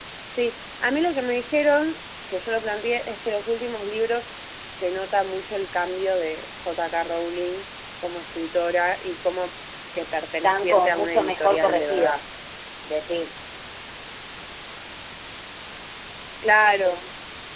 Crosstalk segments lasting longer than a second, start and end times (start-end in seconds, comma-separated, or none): 10.4-12.2